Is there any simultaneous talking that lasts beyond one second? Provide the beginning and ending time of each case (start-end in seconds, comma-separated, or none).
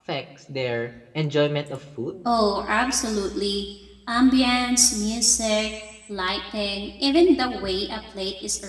none